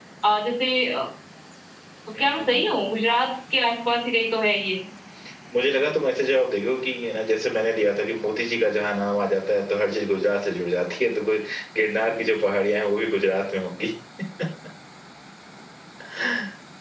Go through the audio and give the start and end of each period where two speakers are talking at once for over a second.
none

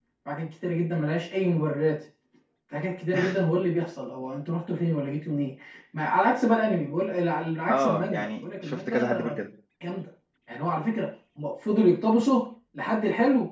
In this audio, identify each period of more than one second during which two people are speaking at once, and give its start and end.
7.7-9.3

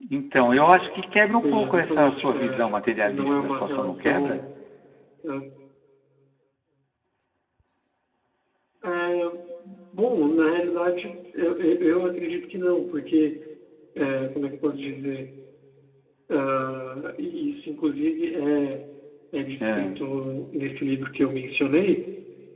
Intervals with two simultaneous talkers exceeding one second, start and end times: 1.2-4.4

